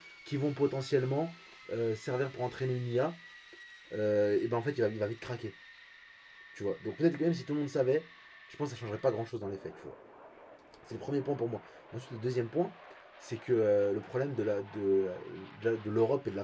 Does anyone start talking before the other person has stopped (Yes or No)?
No